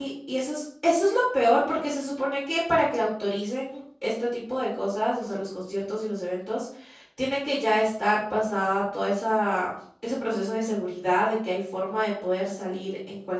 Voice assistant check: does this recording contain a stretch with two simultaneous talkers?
No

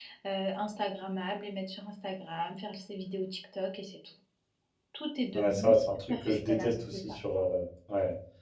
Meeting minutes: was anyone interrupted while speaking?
Yes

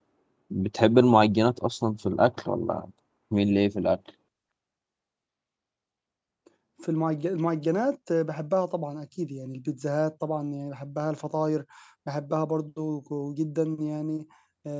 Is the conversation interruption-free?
Yes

